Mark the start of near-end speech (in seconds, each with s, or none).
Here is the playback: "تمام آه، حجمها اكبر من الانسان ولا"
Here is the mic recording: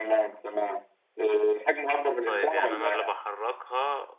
2.2 s